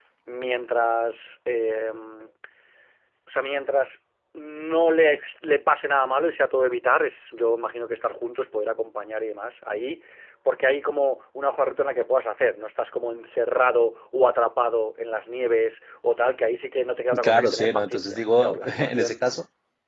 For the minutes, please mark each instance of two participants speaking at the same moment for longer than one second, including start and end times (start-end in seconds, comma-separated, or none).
17.2-19.2